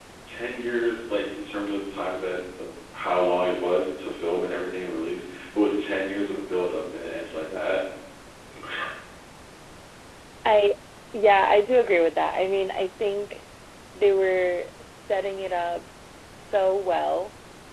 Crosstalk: none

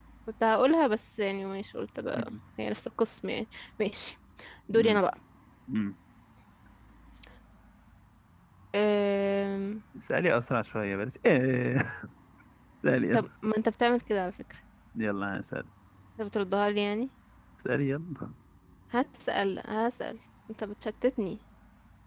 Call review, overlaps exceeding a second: none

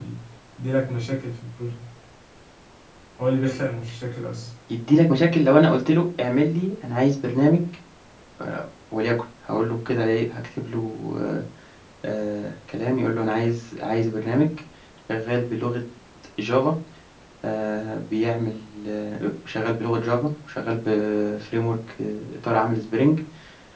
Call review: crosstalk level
none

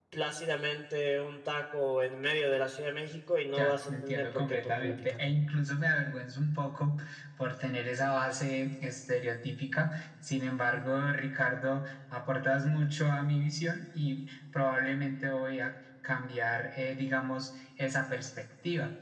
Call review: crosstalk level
present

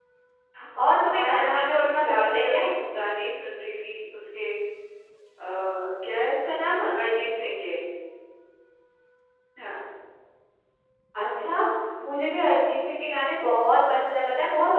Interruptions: present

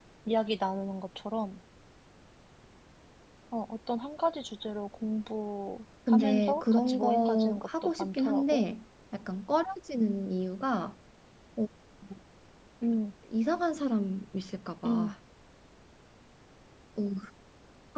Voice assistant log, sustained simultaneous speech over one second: present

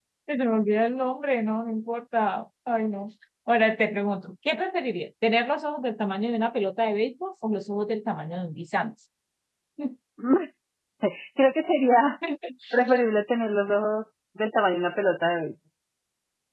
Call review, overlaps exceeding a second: none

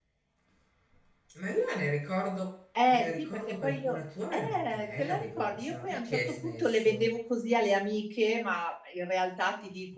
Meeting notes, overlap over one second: present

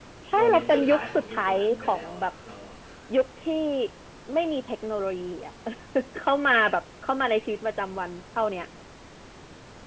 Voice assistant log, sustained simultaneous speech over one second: present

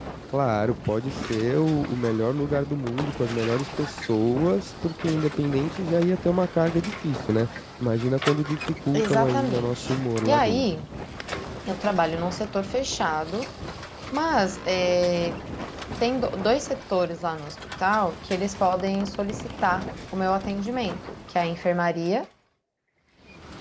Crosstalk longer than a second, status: present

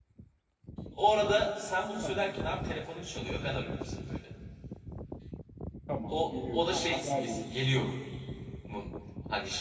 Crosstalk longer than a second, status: present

